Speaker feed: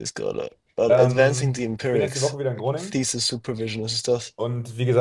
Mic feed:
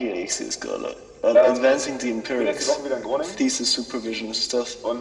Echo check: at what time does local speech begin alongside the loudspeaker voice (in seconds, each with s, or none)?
none